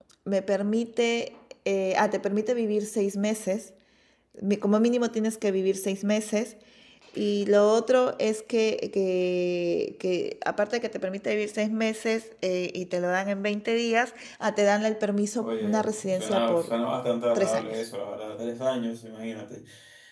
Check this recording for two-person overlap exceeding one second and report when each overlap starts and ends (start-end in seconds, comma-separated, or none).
15.4-16.7